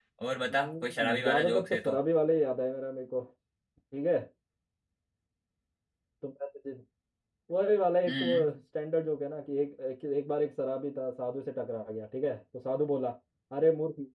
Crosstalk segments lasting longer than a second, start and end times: 0.5-2.0

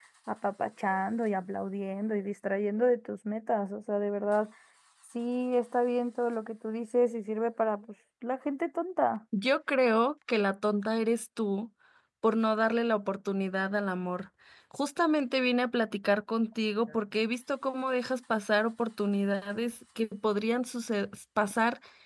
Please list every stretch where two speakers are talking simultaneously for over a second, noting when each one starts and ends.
none

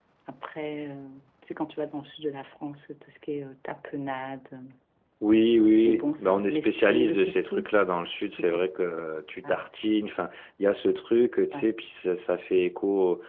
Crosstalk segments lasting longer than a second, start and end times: 5.8-7.7

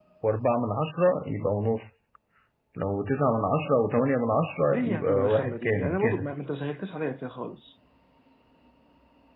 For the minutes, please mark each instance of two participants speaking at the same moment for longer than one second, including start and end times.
4.7-6.3

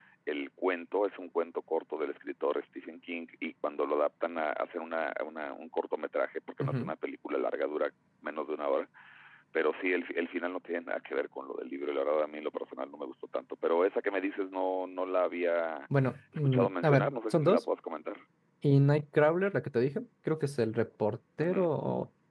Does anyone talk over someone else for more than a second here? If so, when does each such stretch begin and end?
16.4-17.6

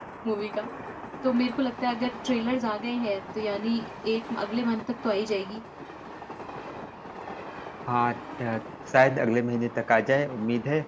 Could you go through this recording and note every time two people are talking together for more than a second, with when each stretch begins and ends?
none

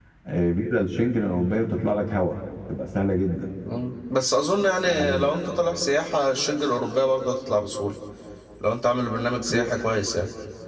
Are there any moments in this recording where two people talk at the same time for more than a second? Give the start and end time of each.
none

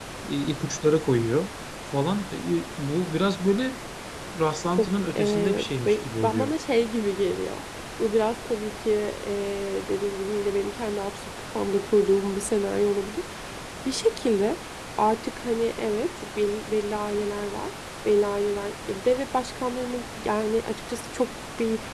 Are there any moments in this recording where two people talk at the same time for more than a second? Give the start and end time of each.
4.7-6.5

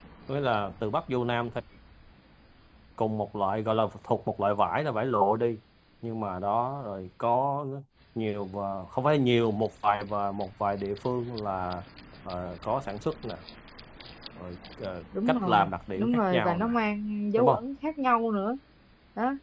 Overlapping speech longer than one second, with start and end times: 15.3-16.7

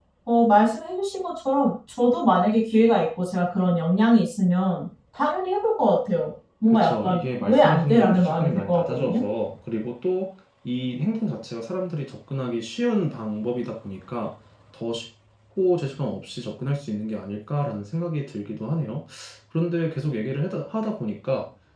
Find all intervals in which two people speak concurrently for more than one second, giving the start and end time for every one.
6.7-9.2

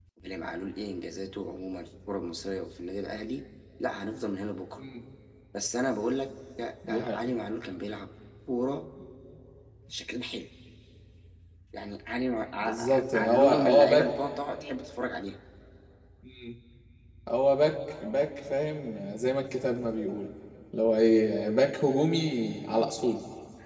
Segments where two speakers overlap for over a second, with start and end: 12.6-14.1

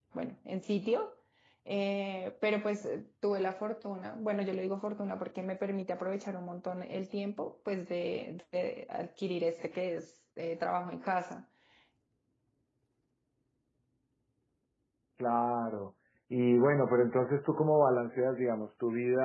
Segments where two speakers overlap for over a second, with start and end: none

